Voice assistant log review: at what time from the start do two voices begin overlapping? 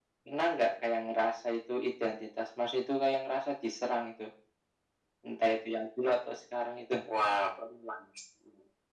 none

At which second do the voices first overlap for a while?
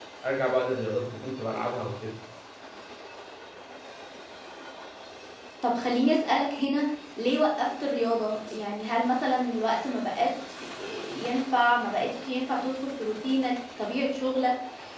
none

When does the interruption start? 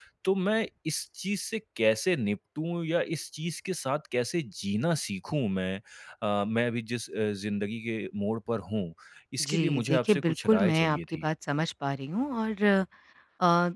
9 s

